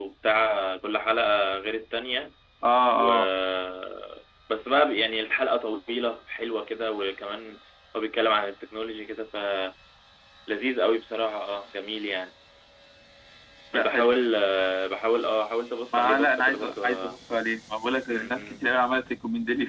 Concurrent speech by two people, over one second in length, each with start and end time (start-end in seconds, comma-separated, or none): 15.9-17.2